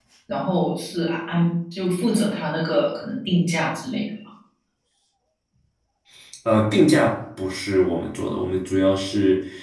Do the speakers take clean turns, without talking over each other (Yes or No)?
Yes